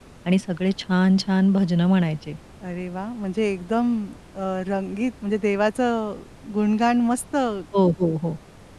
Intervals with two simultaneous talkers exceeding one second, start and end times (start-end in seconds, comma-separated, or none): none